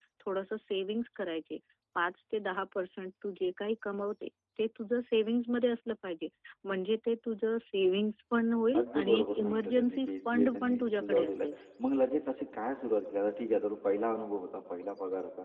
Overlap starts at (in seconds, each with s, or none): 8.7 s